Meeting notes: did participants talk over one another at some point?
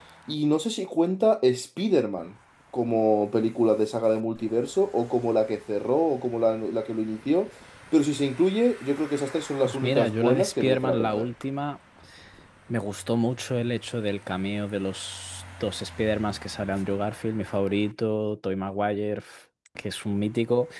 Yes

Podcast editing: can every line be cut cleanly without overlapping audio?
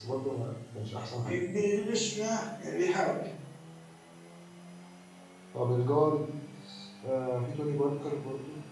Yes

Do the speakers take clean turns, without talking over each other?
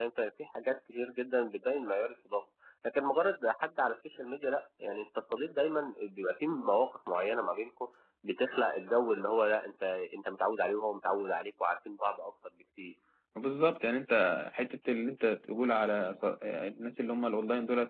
Yes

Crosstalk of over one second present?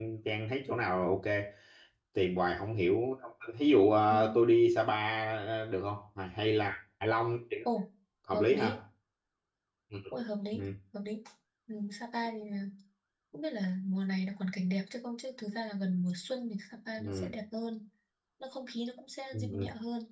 No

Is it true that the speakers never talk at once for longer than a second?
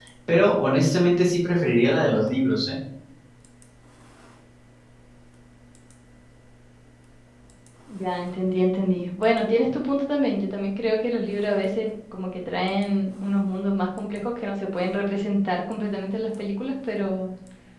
Yes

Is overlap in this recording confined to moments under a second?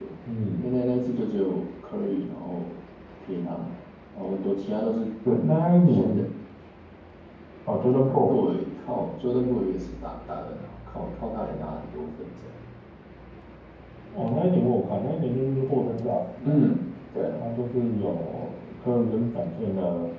Yes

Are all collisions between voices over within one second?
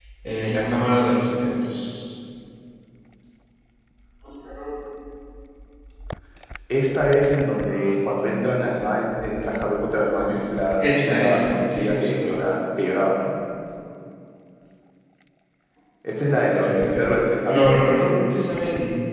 No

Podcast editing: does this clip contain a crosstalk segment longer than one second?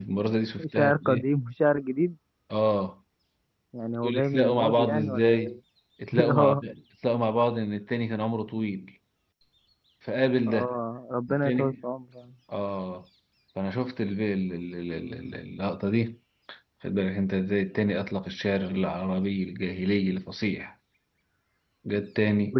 Yes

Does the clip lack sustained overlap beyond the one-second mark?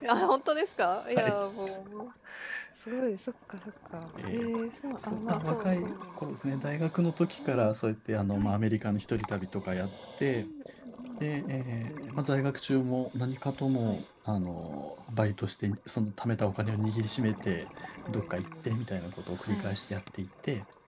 No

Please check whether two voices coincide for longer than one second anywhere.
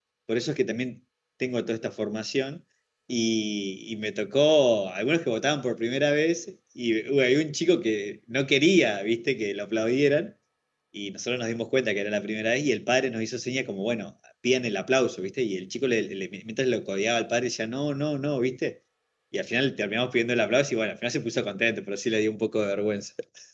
No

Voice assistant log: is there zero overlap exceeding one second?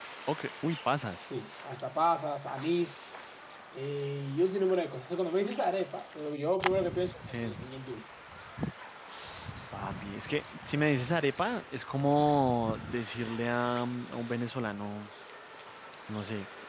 Yes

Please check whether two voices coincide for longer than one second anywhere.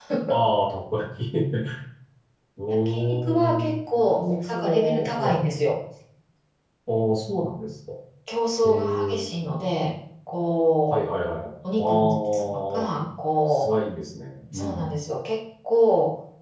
Yes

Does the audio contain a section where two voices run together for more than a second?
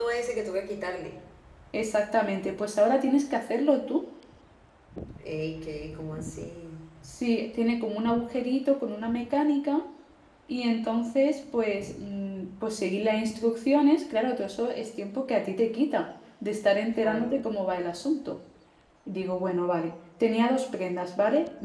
No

